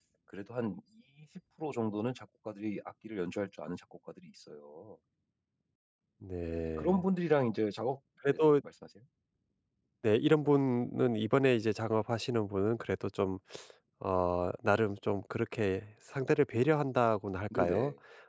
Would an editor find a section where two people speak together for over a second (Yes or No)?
No